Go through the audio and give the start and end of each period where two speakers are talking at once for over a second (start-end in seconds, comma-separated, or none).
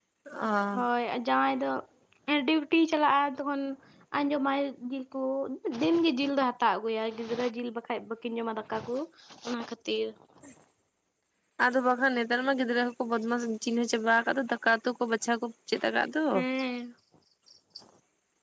none